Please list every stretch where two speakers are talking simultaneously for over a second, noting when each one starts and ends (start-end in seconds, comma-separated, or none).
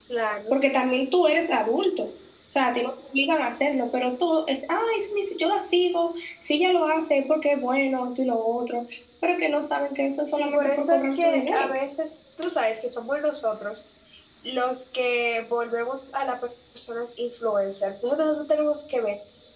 10.3-11.7